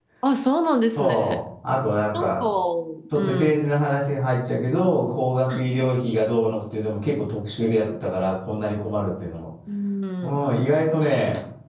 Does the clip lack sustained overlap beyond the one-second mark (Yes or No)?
Yes